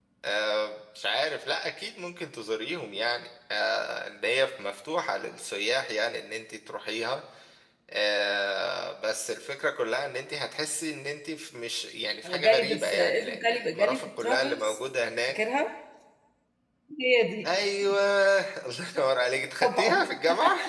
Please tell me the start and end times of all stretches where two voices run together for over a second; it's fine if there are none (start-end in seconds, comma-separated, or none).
12.2-14.8